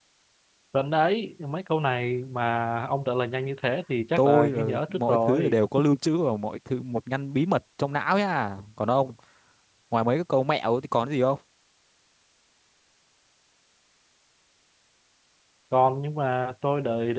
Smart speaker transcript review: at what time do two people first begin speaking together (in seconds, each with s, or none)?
4.2 s